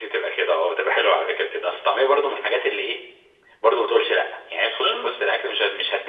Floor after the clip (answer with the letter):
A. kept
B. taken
A